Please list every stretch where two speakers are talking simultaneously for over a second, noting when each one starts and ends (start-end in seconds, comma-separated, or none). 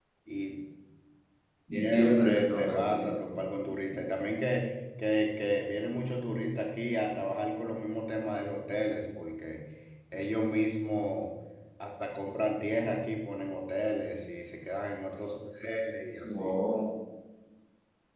1.7-3.1